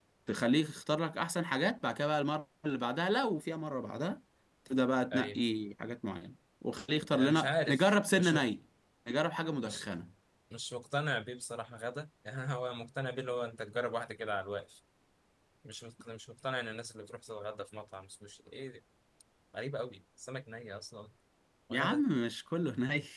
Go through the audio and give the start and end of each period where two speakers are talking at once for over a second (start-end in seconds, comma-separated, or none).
7.2-8.4